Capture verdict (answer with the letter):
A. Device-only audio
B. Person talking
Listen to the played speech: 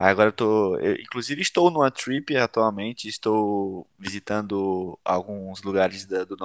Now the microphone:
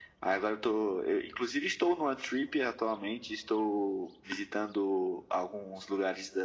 A